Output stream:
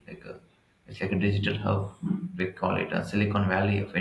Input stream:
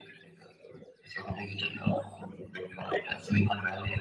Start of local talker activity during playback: none

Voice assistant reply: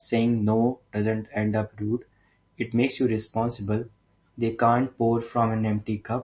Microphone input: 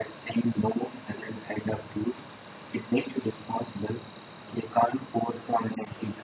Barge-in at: none

